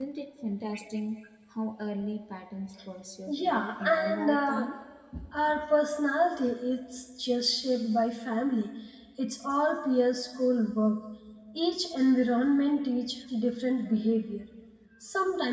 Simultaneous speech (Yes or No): Yes